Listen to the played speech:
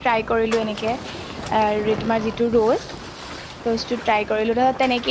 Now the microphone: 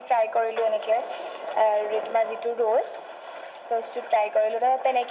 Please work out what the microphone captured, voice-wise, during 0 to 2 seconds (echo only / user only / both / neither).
echo only